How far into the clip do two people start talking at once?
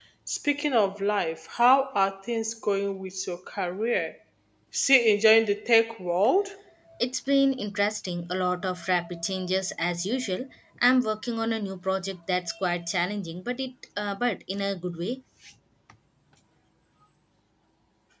none

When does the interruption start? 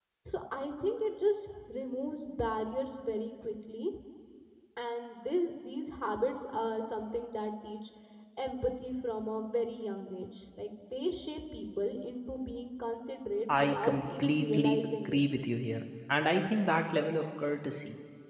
13 s

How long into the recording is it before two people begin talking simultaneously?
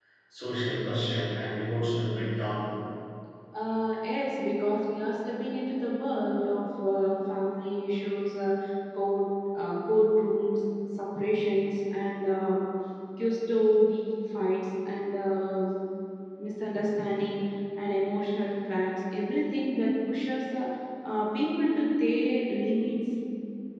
none

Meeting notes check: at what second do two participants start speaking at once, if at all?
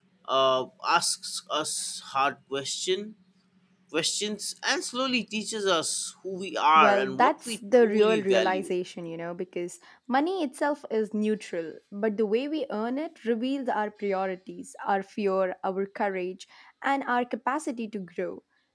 7 s

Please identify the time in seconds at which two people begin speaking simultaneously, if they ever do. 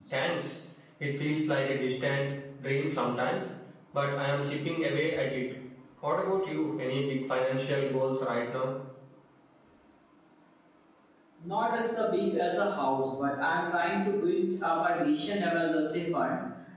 none

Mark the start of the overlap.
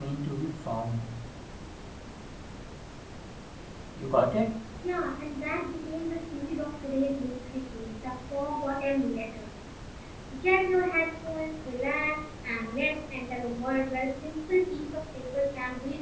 none

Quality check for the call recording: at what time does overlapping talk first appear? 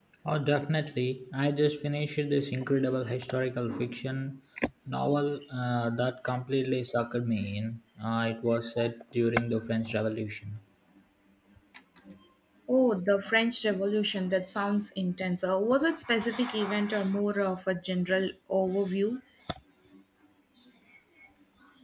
none

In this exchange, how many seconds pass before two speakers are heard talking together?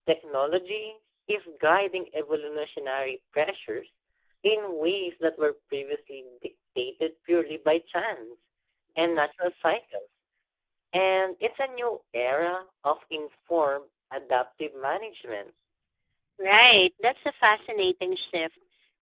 none

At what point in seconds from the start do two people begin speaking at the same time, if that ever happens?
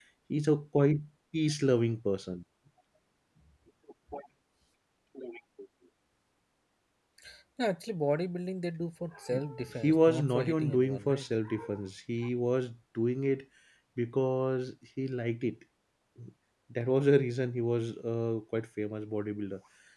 10 s

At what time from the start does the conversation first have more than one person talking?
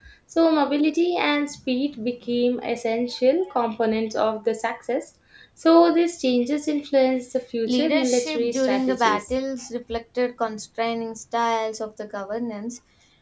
8 s

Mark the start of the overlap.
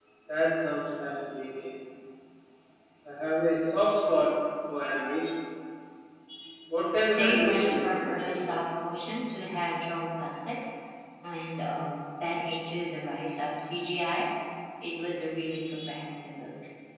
7 s

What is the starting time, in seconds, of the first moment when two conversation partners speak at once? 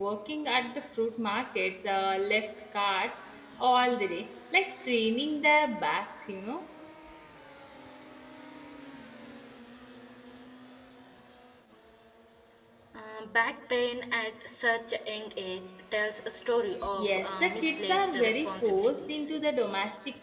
17 s

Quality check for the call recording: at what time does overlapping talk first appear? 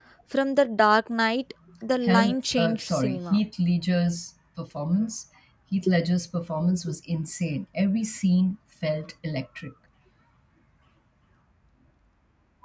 2 s

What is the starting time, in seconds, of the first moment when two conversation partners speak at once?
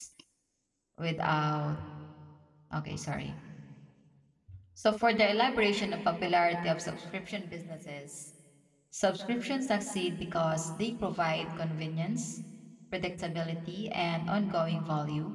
none

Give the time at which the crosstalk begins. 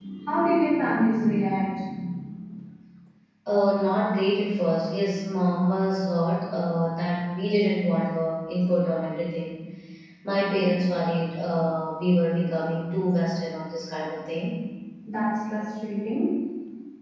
none

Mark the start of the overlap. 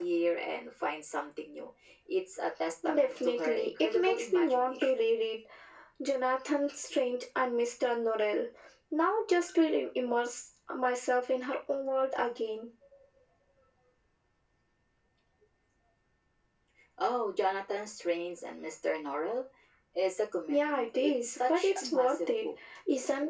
3 s

